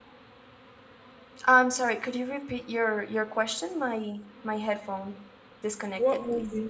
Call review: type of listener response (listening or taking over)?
taking over